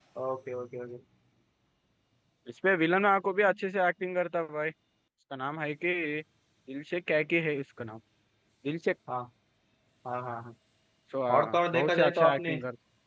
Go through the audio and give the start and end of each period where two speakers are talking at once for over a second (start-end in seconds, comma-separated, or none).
11.3-12.5